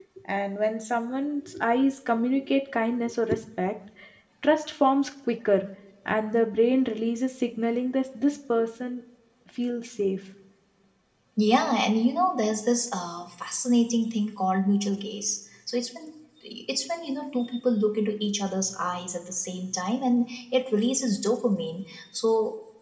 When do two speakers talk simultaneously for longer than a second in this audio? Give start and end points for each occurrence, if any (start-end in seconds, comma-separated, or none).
none